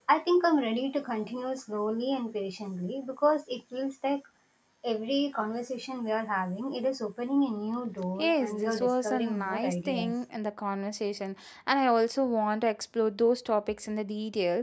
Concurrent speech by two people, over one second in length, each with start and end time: 8.2-10.2

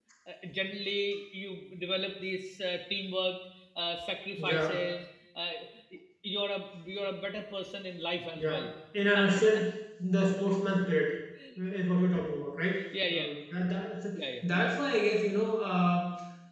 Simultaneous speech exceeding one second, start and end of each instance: none

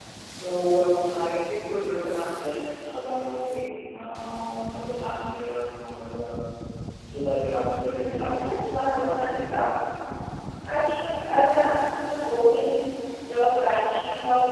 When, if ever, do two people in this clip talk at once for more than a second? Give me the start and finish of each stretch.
7.8-9.7

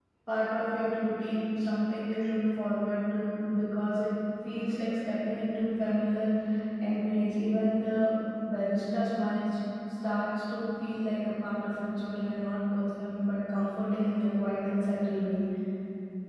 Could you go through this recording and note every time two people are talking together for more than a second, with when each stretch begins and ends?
none

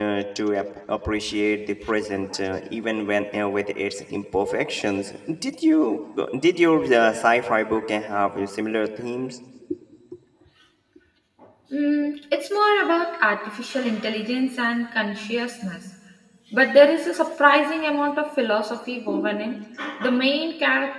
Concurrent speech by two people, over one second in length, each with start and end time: none

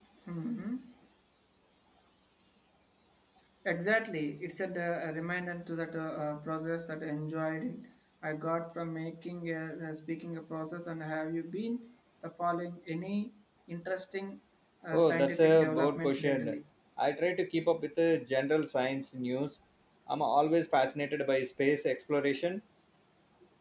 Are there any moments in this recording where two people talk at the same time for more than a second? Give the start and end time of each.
14.9-16.6

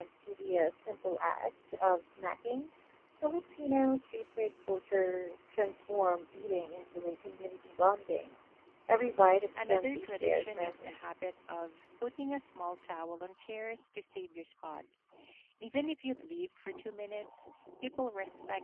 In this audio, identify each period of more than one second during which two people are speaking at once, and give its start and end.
9.6-11.0

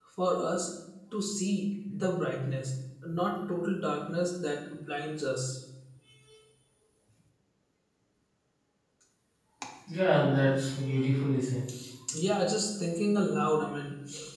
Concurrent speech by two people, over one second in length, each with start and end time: none

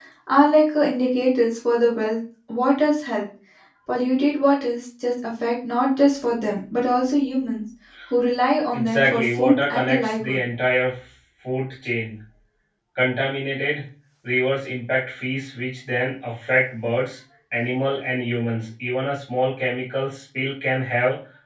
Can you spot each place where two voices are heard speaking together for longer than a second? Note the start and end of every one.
8.7-10.4

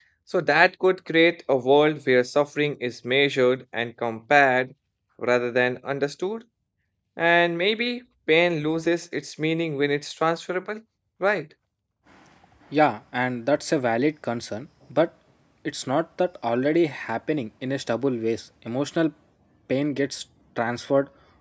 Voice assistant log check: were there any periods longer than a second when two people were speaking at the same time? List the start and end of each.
none

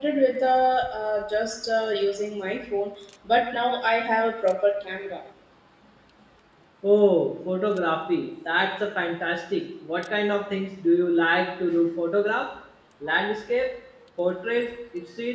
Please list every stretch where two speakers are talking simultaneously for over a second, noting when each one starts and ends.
none

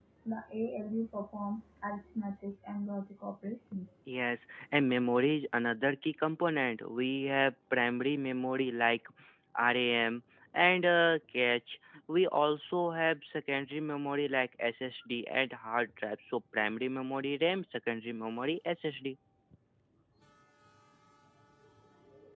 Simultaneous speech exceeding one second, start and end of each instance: none

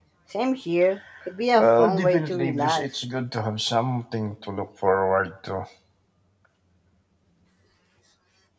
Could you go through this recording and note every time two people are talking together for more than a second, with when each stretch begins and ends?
1.5-2.9

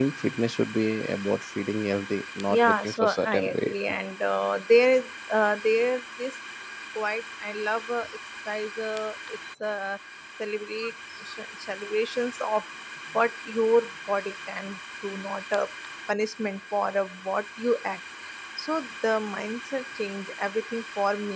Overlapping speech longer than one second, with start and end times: 2.5-3.7

